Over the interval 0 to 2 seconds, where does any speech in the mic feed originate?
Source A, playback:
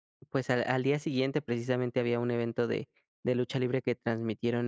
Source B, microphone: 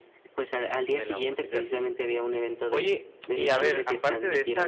both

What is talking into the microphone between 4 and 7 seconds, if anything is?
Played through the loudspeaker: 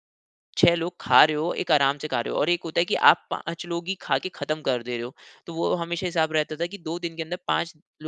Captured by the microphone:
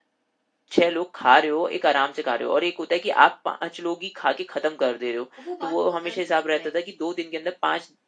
both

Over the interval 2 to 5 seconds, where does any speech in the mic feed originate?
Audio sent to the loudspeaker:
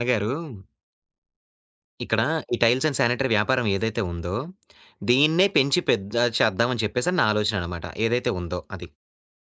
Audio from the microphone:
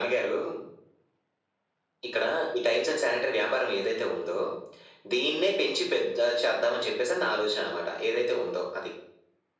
echo only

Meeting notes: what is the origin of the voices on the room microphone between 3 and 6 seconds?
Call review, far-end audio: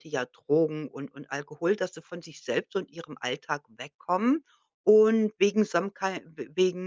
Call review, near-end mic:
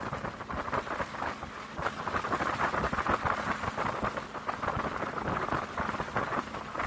neither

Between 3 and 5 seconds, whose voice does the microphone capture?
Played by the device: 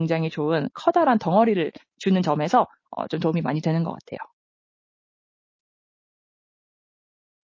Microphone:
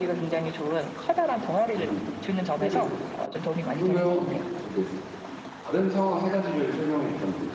both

